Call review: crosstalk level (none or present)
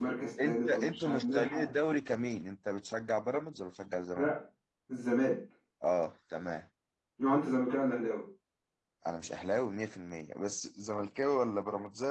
present